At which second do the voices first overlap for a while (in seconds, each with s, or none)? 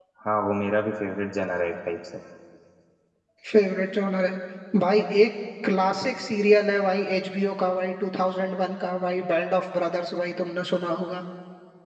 none